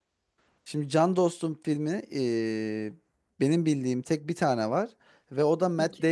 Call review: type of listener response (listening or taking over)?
listening